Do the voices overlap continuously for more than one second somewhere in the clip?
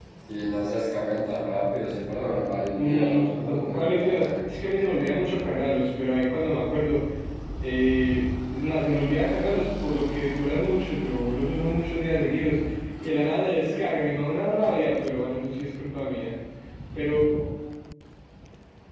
Yes, from 2.7 s

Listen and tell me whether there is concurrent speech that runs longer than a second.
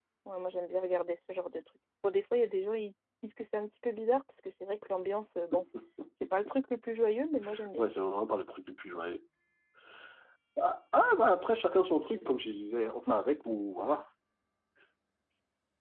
No

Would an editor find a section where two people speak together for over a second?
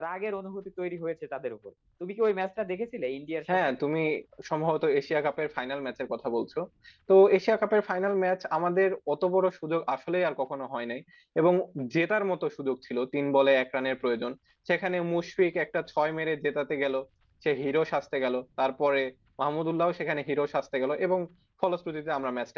No

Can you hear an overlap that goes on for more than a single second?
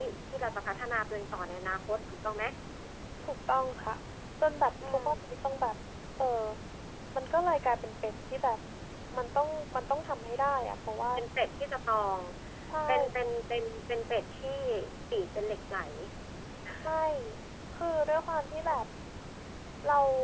No

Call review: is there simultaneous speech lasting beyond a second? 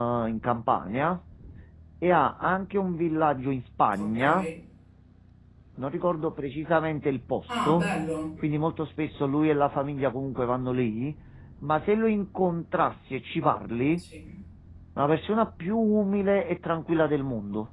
No

